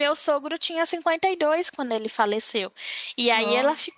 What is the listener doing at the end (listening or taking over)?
listening